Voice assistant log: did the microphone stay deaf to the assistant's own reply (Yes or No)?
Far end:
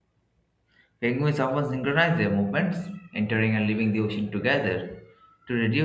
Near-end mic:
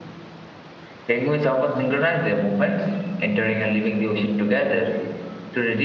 No